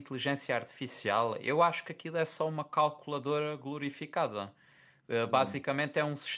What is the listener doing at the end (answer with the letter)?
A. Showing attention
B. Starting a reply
A